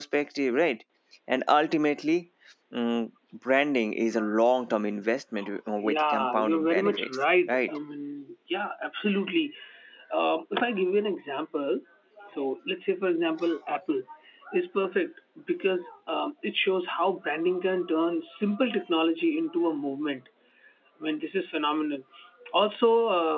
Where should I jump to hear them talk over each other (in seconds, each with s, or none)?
5.8 s